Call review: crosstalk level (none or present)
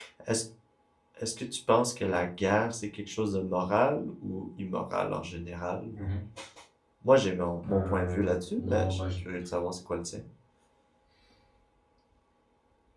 present